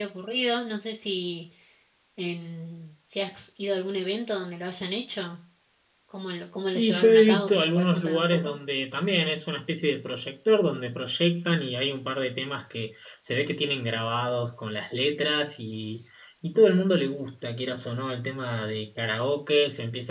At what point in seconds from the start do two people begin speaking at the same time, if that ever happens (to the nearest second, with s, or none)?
7 s